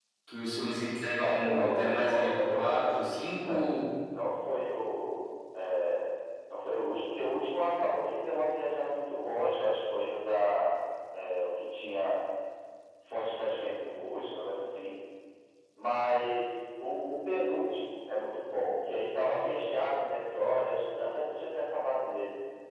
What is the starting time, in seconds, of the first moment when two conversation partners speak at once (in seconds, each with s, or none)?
1.2 s